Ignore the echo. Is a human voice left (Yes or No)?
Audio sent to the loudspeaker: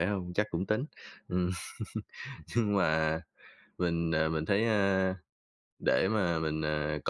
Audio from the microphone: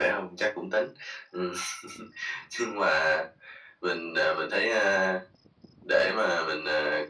No